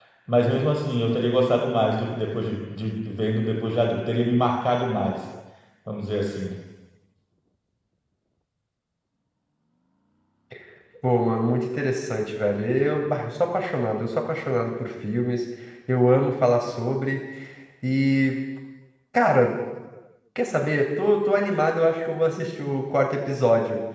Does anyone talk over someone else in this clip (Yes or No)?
No